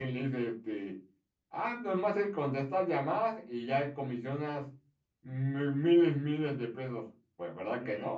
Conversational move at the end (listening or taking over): taking over